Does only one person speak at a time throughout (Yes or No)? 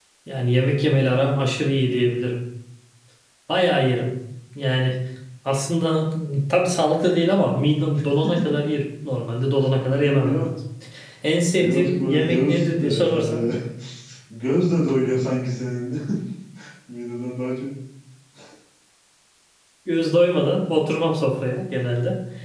No